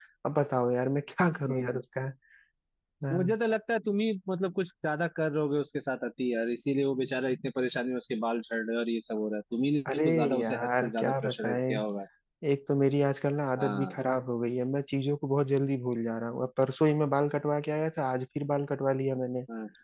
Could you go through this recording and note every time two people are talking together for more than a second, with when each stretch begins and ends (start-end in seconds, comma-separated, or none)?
9.9-11.8